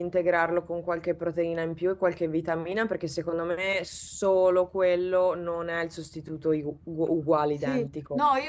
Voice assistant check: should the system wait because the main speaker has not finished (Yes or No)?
No